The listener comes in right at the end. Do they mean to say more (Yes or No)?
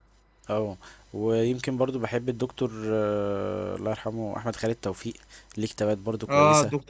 Yes